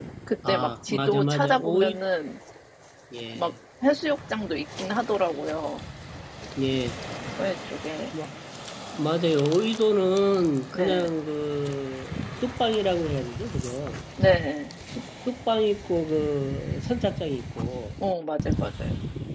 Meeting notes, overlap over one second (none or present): present